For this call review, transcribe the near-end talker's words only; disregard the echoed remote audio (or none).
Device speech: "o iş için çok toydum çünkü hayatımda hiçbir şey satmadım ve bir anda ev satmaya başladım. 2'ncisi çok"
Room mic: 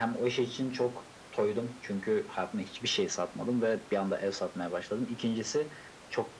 none